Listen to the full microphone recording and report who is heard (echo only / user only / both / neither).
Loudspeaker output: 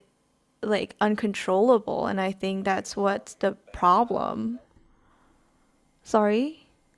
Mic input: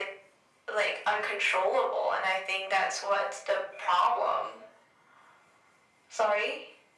echo only